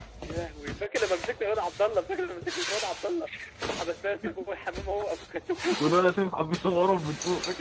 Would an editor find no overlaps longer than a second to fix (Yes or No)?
Yes